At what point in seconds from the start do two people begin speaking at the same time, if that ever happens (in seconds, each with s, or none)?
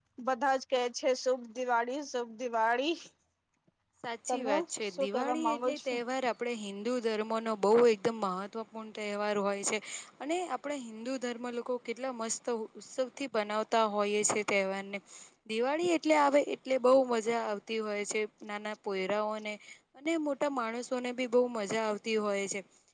4.3 s